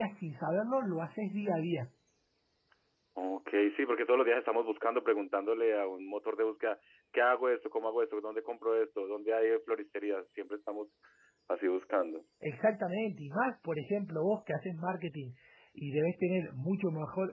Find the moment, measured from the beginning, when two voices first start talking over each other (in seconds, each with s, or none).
none